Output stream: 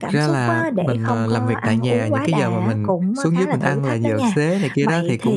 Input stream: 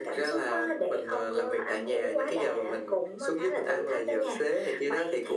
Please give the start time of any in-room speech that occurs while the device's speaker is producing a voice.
none

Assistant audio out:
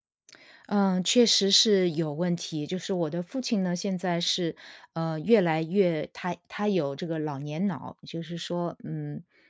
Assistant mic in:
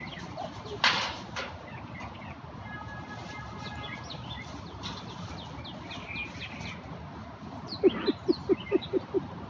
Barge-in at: none

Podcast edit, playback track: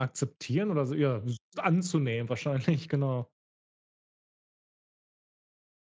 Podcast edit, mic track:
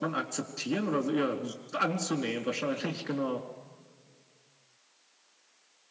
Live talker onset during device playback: none

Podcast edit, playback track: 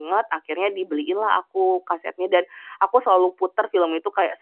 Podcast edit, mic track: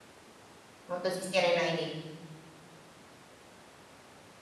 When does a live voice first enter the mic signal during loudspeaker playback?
0.9 s

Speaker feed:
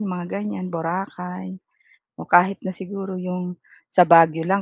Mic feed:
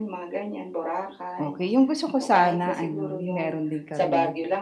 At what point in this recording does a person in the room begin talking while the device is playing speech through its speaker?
1.4 s

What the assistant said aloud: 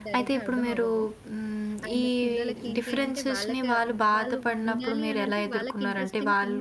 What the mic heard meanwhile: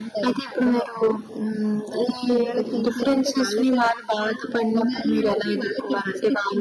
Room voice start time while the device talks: none

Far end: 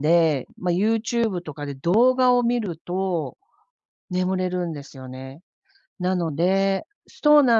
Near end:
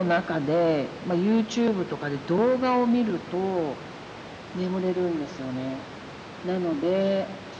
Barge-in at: none

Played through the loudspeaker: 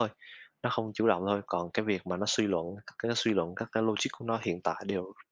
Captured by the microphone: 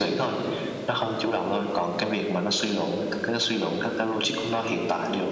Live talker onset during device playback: none

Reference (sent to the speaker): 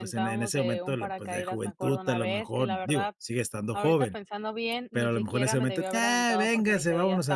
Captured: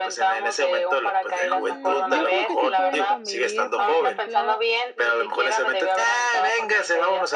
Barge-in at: 1.4 s

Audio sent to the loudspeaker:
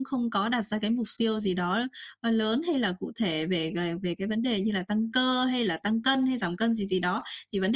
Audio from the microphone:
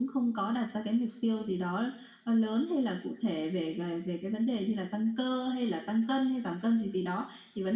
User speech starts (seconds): none

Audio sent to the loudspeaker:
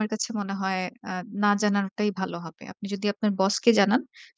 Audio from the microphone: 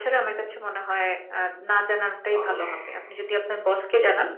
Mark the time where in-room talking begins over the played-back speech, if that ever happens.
2.4 s

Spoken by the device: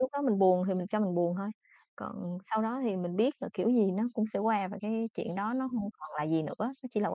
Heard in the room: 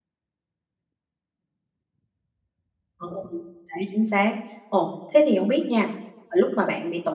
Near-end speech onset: 3.0 s

